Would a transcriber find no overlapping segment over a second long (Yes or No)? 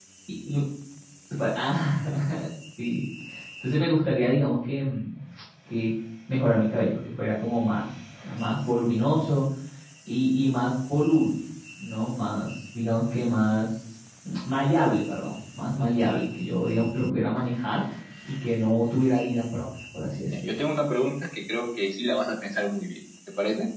Yes